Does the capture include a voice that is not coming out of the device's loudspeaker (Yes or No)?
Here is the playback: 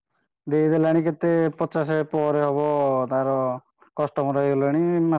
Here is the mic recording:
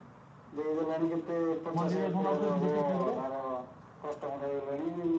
Yes